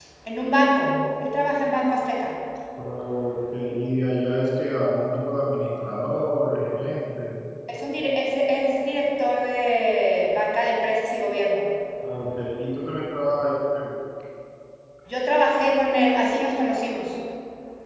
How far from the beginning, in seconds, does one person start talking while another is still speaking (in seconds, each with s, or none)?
none